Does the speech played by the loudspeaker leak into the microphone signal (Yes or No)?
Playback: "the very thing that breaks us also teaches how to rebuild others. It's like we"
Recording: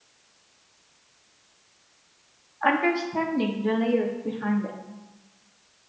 No